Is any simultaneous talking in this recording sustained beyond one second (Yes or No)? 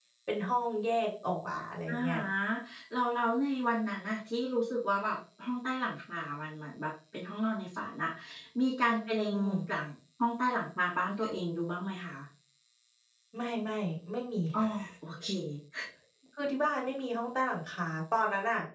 No